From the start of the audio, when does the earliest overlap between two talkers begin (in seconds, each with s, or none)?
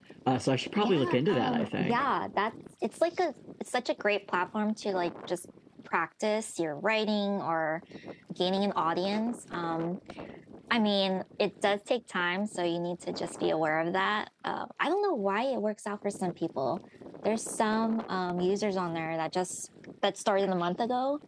0.8 s